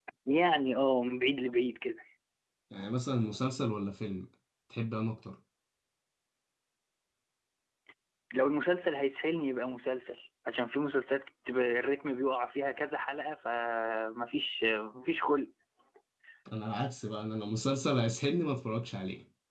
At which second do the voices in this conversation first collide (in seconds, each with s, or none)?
none